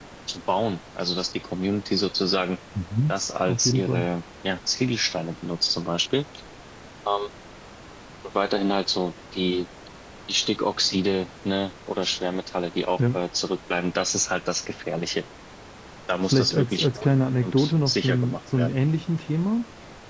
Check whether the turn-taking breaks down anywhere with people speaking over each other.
Yes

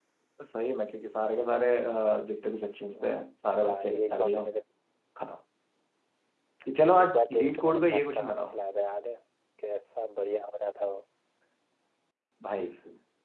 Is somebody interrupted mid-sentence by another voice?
Yes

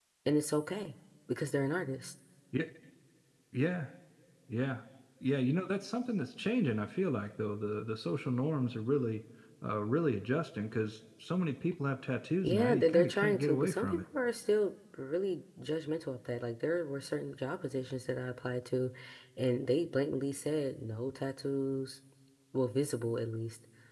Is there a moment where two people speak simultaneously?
Yes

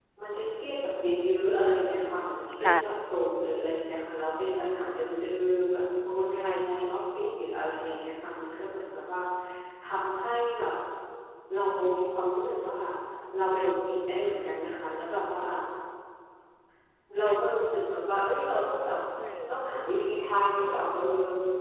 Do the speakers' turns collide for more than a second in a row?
No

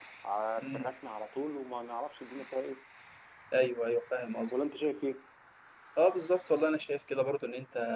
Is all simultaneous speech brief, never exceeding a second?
Yes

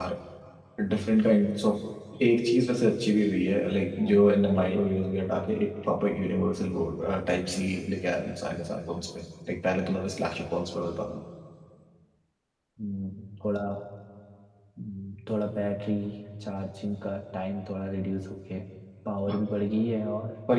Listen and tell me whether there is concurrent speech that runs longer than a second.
No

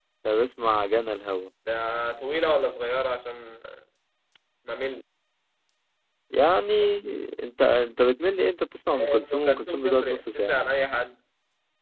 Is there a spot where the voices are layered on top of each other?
Yes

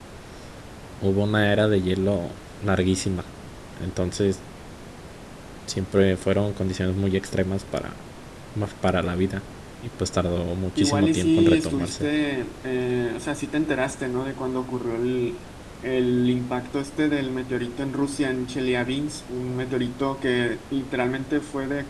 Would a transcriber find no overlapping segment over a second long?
No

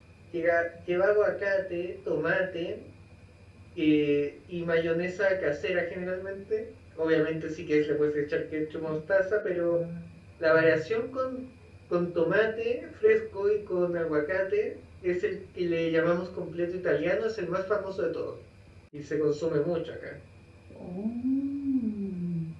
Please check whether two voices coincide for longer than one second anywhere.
No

